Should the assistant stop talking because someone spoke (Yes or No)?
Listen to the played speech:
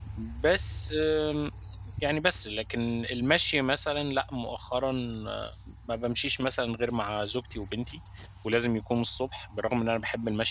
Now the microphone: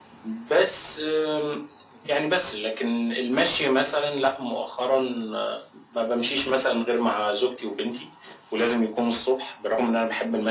No